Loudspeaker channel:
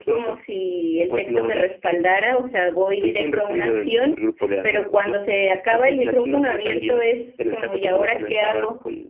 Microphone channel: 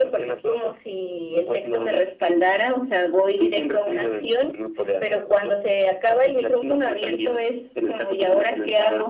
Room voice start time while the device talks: none

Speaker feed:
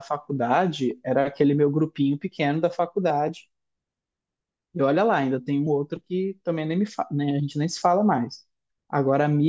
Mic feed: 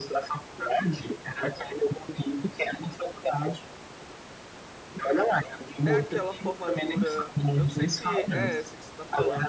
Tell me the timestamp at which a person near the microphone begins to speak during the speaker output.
6 s

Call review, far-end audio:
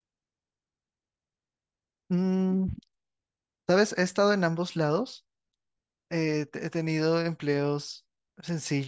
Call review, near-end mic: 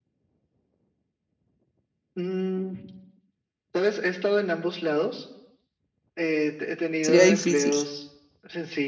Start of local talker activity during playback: 7 s

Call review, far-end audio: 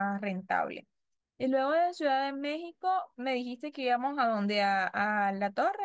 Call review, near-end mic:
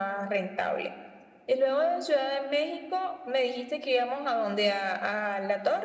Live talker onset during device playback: none

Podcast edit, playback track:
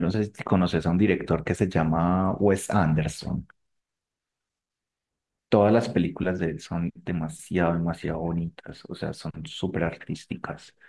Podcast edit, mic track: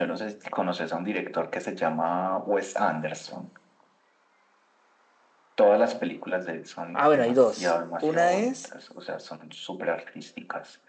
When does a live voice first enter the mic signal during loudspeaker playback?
7 s

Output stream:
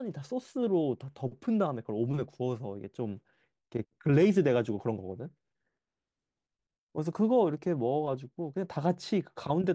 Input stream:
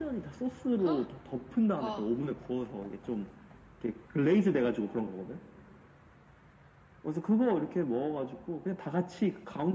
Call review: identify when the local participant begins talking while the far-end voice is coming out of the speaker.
1 s

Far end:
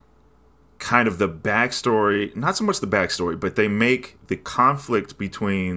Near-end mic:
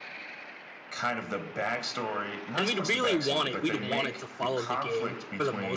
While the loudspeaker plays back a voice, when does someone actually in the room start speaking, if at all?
3 s

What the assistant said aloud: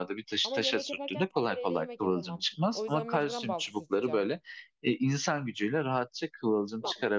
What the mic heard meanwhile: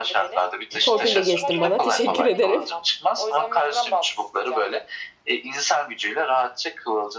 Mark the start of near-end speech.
1 s

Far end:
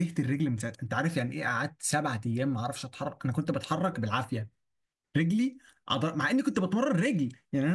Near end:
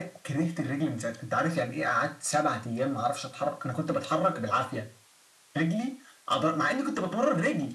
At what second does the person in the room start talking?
none

